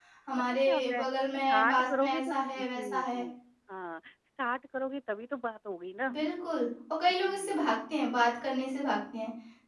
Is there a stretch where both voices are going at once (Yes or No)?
Yes